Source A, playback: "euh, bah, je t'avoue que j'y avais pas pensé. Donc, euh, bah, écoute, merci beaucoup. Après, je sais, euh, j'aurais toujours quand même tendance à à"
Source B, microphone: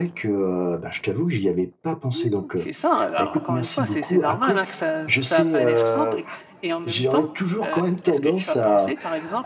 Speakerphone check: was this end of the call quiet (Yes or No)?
No